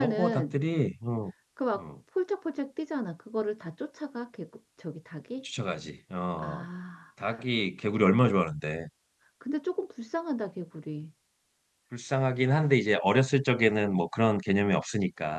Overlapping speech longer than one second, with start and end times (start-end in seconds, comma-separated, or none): none